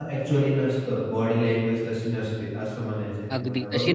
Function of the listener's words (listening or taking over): taking over